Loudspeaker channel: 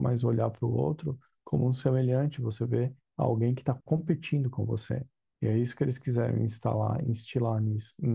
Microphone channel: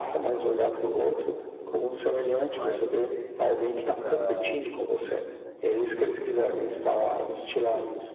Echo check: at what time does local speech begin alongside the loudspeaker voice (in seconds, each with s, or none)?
1.5 s